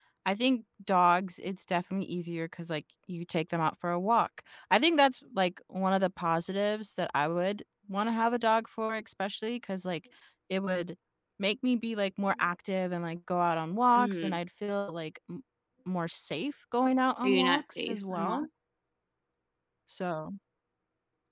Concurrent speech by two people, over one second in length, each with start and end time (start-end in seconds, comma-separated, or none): 17.2-18.5